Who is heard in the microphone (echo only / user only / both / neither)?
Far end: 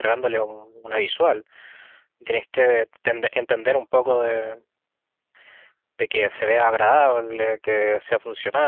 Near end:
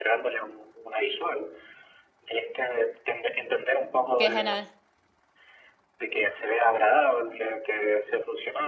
both